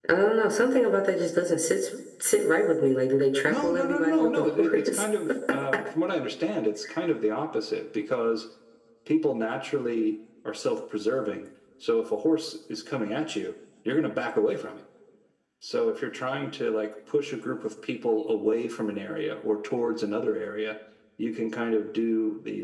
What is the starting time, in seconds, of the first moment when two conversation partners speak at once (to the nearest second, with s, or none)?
3 s